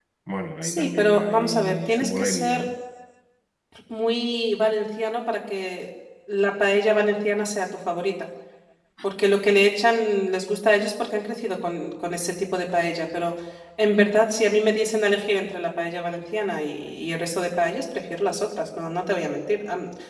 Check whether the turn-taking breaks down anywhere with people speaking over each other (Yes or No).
Yes